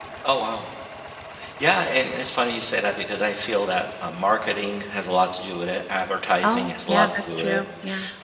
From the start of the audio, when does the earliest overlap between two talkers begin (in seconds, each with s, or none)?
6.4 s